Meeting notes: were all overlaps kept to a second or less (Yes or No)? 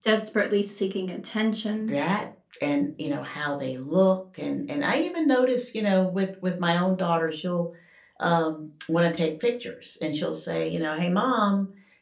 Yes